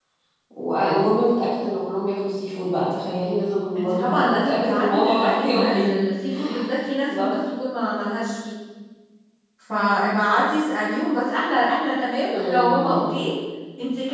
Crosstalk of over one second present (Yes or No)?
Yes